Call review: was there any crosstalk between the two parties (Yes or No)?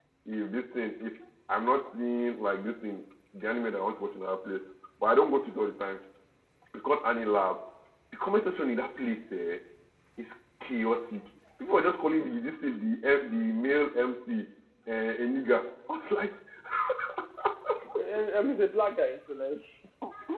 No